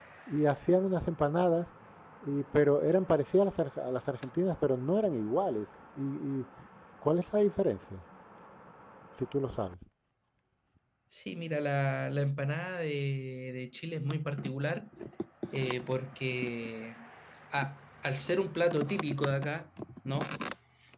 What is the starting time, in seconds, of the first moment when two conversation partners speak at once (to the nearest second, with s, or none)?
none